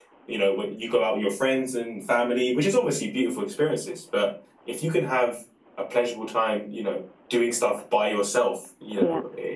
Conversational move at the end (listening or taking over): listening